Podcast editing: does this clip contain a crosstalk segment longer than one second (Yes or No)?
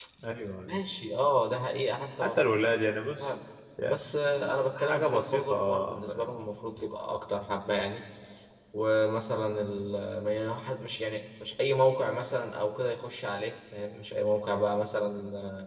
Yes